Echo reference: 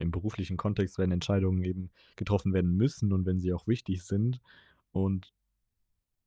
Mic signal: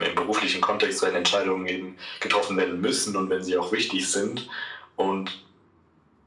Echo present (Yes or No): Yes